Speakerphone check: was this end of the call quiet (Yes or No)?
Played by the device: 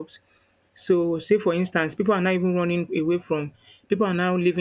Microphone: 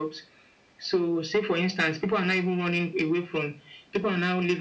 Yes